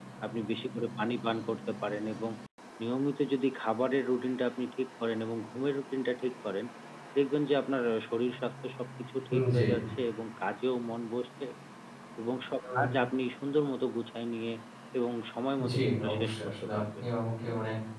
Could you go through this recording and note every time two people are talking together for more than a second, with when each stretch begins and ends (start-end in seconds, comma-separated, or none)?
15.7-17.1